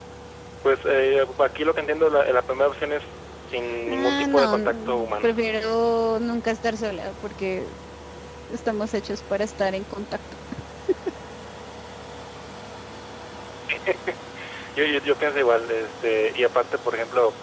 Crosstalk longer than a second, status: present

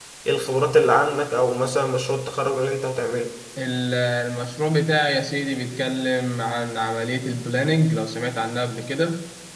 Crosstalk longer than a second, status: none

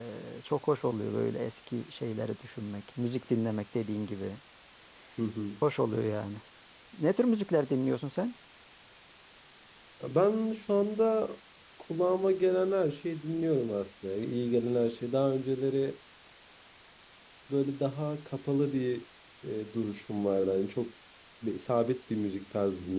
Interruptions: none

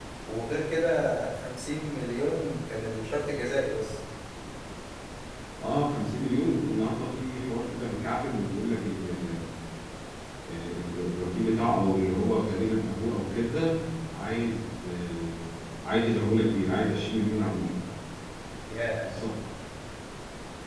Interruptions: none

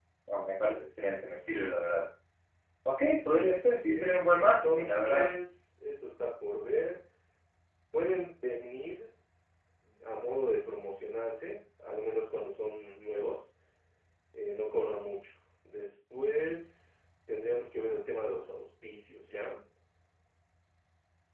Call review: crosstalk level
present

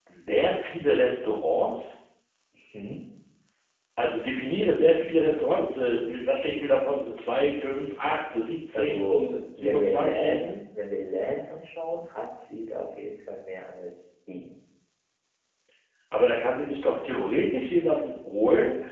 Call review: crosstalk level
present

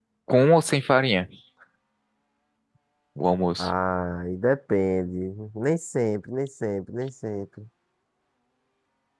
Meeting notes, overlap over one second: none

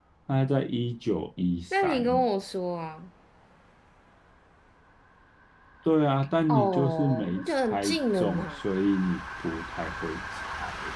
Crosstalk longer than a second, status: present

